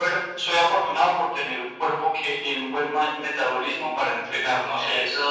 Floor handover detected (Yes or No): Yes